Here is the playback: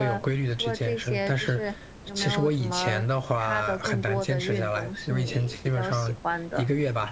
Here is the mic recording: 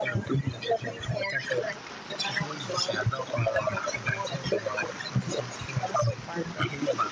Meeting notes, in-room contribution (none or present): none